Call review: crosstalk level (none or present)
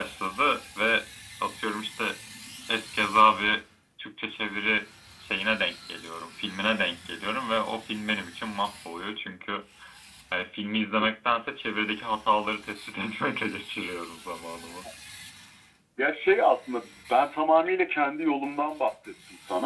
none